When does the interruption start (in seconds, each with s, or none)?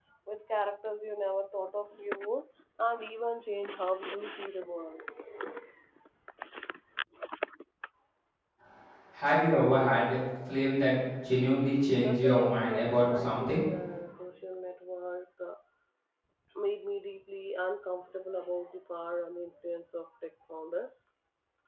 12.0 s